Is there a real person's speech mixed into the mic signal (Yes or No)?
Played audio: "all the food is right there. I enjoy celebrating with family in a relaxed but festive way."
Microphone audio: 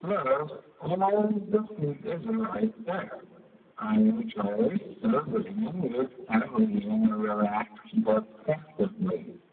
No